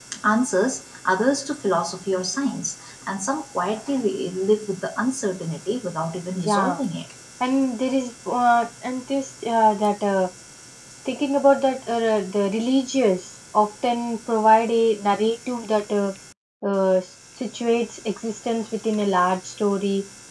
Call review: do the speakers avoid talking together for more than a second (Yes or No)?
Yes